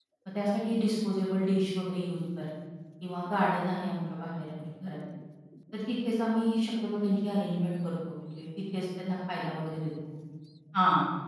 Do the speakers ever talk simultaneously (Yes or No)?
No